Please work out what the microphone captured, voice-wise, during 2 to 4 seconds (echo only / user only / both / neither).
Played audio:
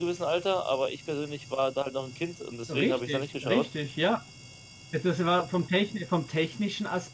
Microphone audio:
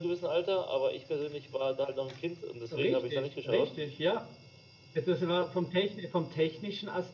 echo only